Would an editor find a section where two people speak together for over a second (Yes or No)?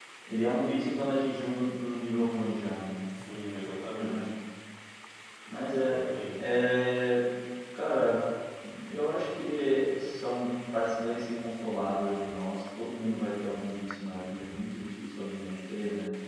No